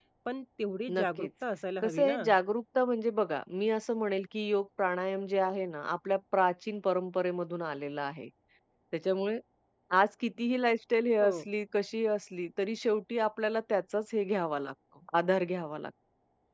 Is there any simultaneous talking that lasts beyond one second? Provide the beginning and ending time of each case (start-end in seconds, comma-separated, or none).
none